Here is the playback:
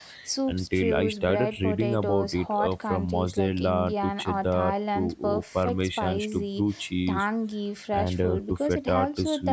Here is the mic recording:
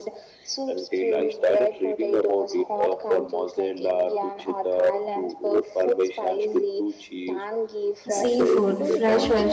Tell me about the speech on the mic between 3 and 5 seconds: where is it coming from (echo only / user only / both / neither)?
echo only